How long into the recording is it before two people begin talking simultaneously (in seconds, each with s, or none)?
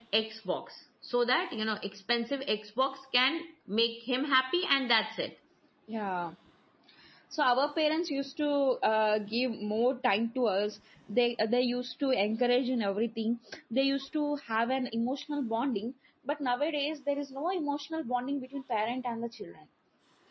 none